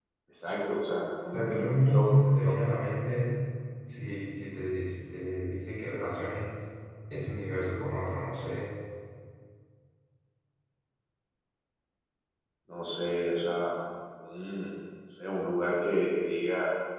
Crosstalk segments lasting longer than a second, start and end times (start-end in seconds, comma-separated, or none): 1.3-2.5